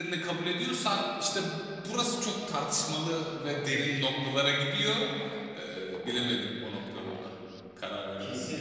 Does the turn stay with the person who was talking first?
No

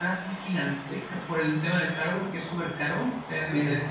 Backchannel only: Yes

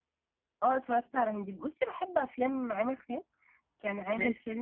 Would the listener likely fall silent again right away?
Yes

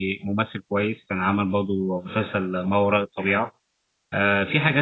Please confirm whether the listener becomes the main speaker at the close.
No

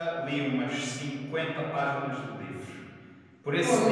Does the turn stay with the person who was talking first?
Yes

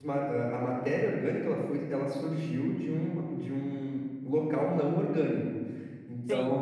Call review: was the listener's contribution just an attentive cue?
No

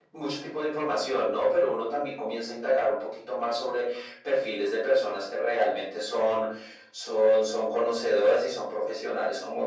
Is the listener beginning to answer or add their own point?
No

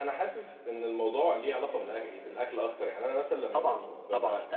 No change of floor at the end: No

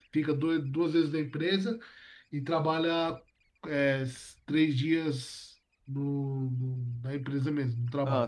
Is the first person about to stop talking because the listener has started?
No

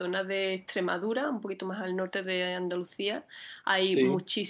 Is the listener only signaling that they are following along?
Yes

